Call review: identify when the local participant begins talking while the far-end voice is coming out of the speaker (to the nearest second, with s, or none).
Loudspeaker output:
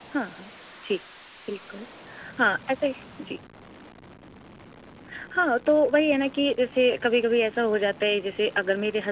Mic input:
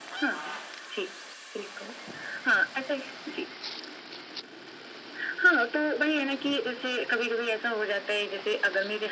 none